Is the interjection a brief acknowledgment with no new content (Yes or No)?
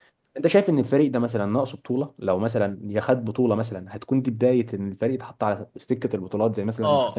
No